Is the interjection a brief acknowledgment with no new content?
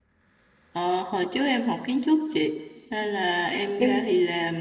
Yes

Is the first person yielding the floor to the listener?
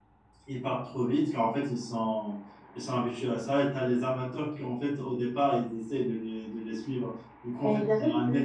Yes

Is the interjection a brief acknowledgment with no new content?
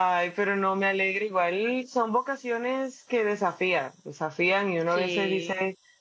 Yes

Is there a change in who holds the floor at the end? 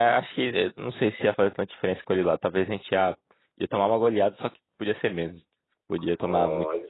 Yes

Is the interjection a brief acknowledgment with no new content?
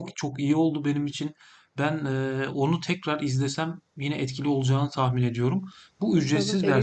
No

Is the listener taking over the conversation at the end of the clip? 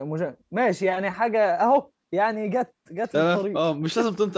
Yes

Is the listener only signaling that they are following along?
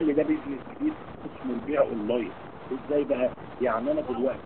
Yes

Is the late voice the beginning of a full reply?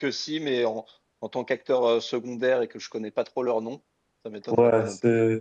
Yes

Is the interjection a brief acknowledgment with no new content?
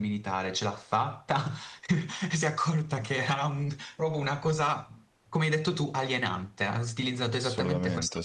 Yes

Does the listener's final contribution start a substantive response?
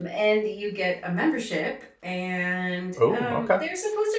No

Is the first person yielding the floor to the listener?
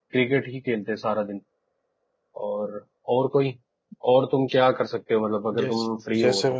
Yes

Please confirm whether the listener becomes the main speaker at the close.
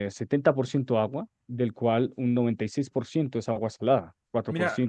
Yes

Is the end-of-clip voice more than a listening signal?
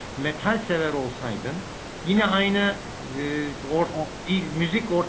No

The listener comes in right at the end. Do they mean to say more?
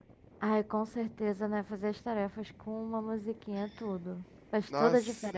Yes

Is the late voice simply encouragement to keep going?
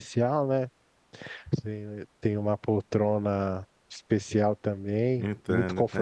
Yes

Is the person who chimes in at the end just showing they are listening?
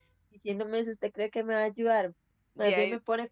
Yes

